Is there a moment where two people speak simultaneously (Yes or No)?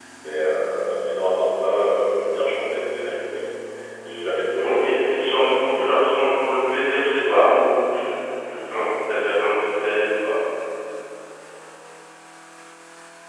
Yes